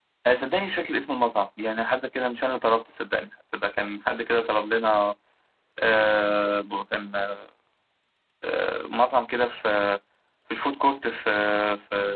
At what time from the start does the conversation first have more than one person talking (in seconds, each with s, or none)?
none